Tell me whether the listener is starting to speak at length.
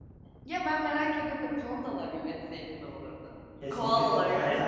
Yes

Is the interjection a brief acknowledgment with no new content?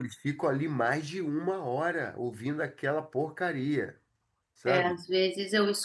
No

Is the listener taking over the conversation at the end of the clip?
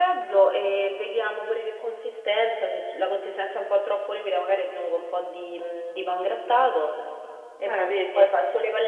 No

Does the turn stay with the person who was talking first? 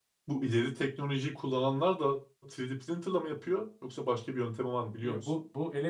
No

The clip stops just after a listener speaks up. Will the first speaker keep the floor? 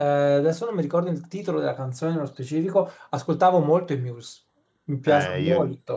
No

